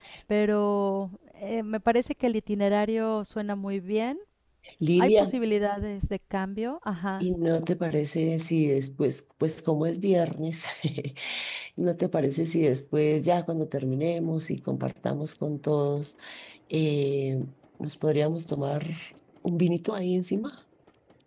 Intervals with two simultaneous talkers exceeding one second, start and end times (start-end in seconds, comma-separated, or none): none